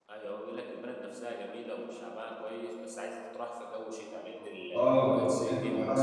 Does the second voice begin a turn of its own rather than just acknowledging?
Yes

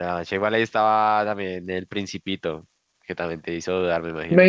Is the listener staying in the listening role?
No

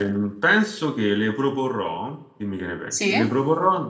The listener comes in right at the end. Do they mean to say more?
No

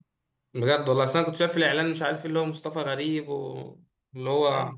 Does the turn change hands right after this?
No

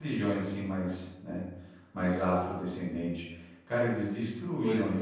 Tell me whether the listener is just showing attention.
Yes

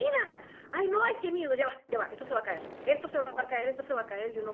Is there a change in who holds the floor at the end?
No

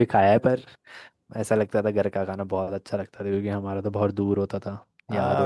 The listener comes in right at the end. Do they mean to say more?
Yes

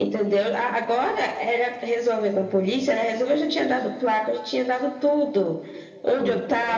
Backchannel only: Yes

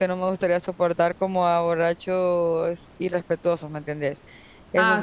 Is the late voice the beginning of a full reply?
Yes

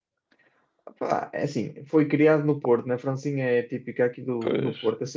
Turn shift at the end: No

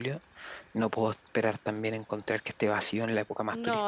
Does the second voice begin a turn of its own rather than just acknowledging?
Yes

